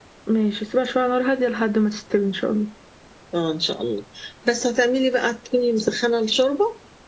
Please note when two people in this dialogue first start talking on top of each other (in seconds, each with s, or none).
none